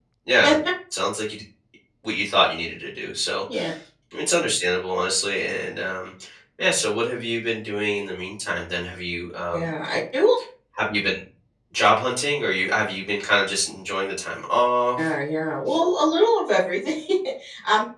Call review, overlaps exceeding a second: none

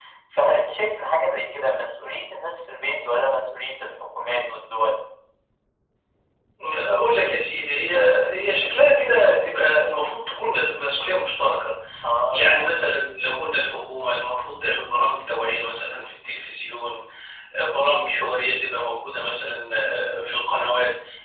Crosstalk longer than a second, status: none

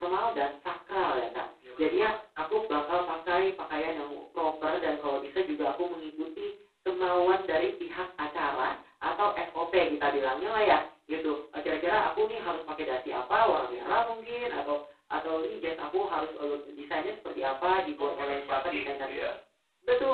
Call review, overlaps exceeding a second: present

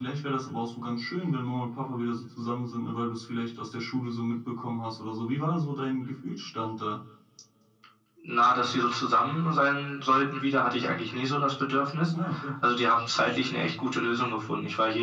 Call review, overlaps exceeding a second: none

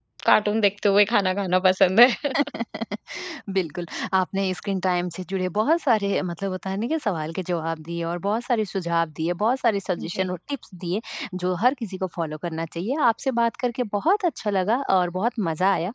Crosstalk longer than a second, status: none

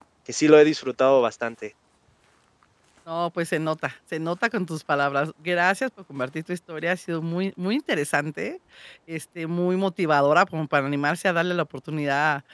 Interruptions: none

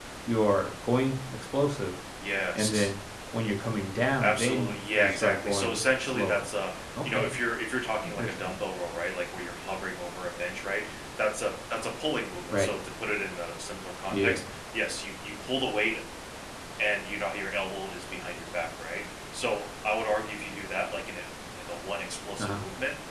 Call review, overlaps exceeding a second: present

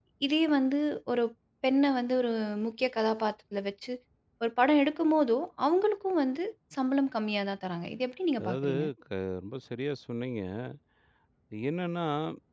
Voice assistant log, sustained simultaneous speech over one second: none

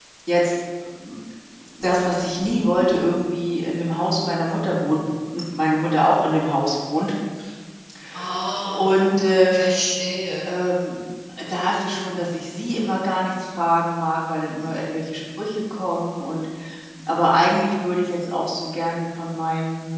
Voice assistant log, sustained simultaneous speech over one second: none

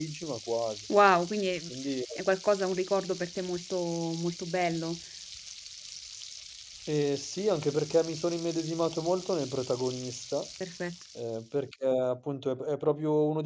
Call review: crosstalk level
none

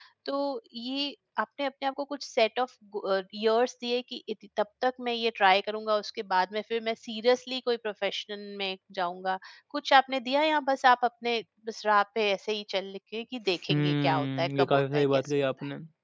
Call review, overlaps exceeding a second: present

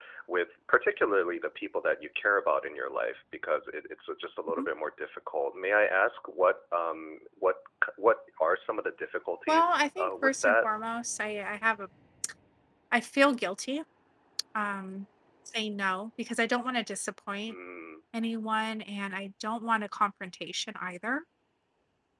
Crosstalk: present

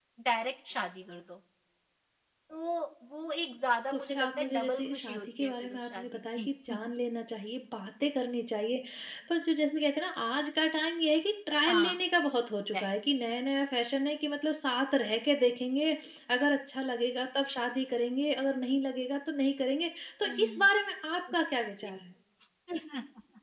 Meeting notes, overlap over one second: present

